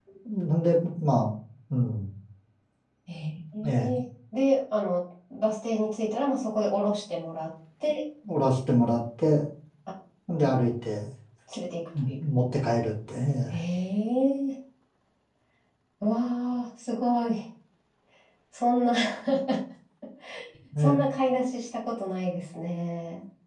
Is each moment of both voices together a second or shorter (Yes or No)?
Yes